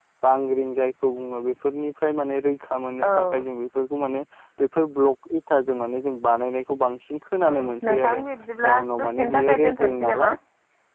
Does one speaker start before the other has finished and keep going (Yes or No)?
Yes